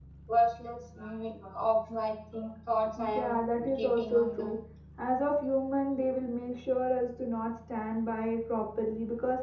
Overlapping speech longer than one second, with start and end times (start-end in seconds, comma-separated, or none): 3.2-4.6